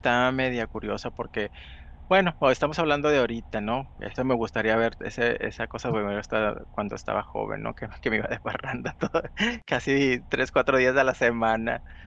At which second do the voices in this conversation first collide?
none

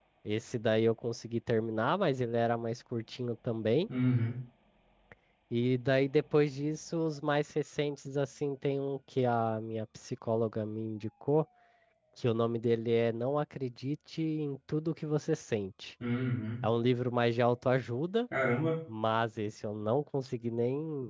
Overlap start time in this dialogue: none

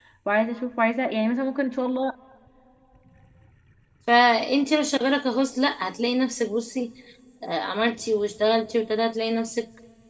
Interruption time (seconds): none

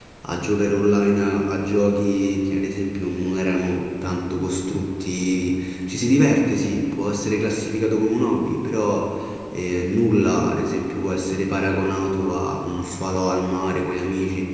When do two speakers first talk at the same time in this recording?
none

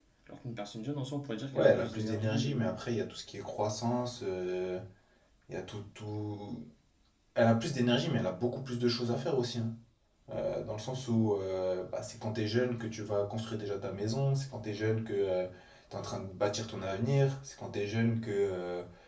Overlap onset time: 1.5 s

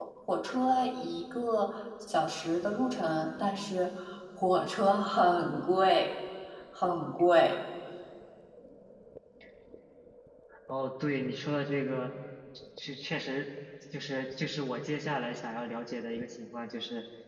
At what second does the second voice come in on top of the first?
none

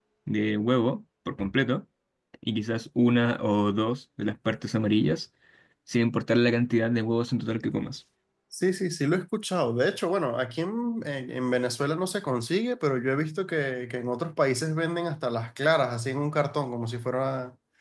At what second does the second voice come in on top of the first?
none

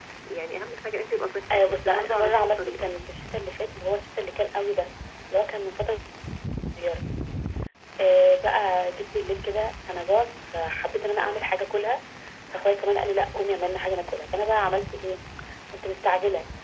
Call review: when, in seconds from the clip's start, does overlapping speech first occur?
1.5 s

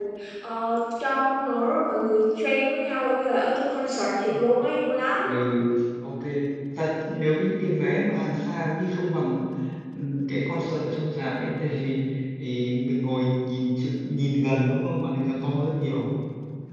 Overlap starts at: none

